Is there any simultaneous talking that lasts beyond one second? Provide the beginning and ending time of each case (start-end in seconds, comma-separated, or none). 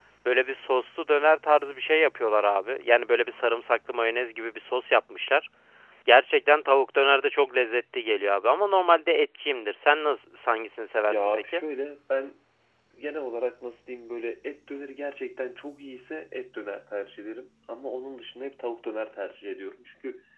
none